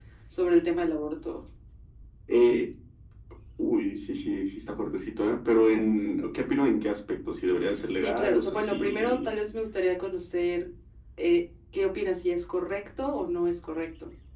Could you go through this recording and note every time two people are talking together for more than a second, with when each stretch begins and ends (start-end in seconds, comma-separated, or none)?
7.7-9.3